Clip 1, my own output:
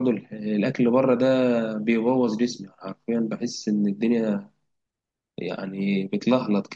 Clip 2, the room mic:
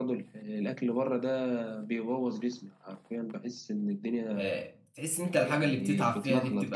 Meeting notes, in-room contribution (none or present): present